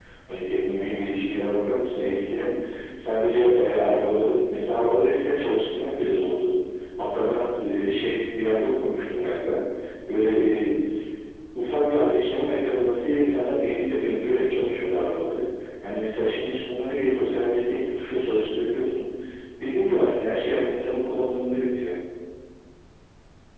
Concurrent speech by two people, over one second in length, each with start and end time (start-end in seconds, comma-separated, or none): none